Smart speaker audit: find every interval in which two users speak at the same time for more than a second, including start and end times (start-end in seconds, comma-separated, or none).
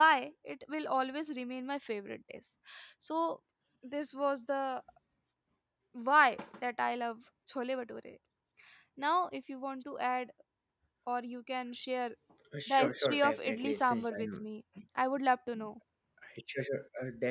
12.7-14.4